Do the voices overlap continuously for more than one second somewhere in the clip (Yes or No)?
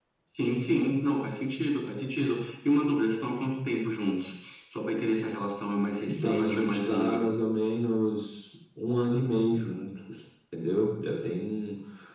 Yes